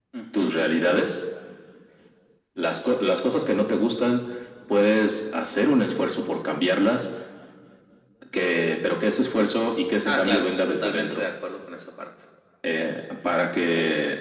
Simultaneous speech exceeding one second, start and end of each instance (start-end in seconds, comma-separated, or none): 10.0-11.2